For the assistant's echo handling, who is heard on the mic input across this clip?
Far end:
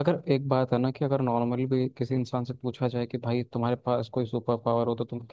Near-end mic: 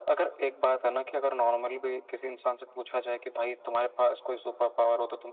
echo only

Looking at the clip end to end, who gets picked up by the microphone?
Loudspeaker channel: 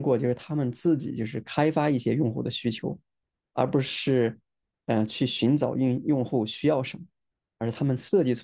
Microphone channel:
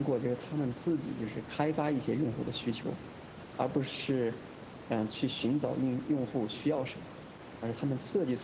echo only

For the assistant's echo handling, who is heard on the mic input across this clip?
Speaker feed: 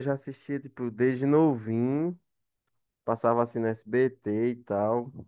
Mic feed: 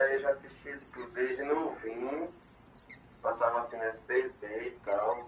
echo only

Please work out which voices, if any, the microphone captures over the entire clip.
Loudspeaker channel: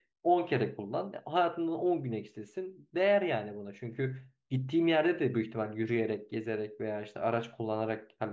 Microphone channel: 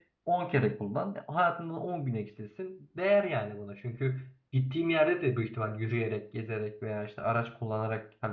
echo only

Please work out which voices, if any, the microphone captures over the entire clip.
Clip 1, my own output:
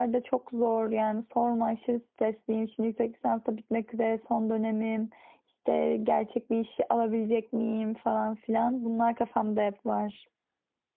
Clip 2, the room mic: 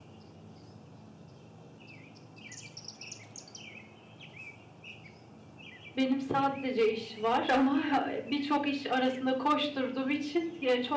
user only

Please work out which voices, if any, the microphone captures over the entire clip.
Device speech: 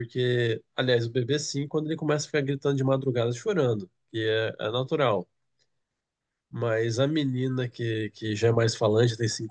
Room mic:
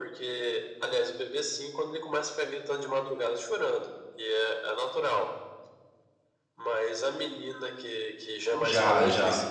both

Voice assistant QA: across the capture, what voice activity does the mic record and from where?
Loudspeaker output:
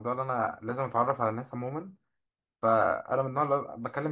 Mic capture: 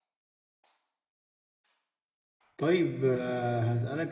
user only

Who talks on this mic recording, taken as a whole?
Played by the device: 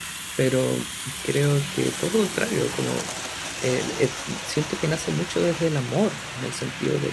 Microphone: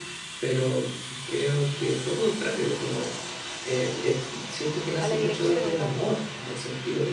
both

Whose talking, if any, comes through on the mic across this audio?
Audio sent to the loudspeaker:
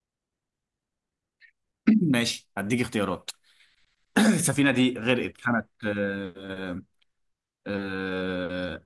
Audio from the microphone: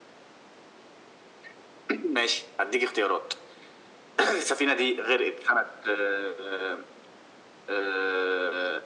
echo only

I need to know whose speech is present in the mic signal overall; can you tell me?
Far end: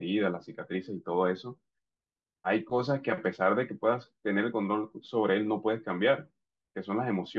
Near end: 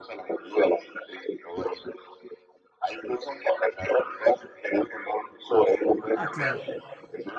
both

